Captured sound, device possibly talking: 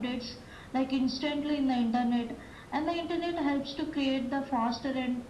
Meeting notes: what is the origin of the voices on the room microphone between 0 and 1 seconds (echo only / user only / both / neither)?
echo only